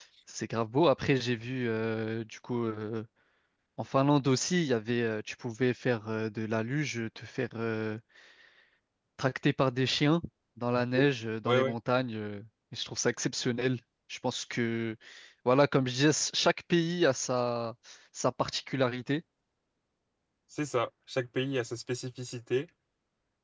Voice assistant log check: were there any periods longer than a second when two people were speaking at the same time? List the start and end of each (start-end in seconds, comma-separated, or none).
none